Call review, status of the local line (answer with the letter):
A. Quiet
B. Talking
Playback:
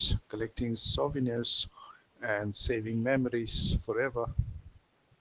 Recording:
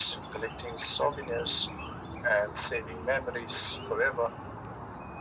A